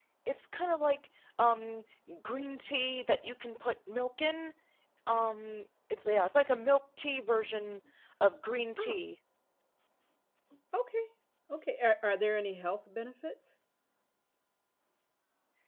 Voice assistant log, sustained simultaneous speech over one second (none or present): none